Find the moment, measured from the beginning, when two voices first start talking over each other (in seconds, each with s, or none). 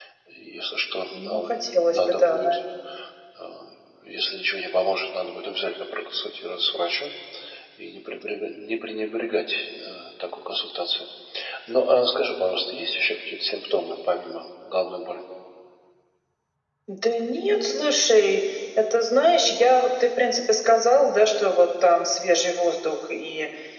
1.1 s